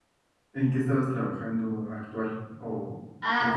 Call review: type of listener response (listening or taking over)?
taking over